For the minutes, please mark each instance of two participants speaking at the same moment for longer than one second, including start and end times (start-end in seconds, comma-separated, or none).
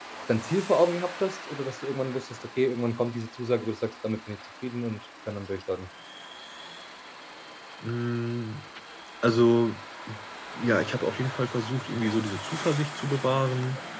none